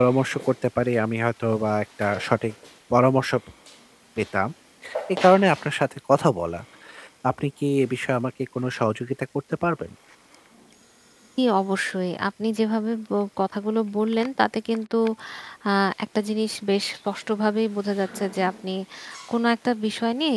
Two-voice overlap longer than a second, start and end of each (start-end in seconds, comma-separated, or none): none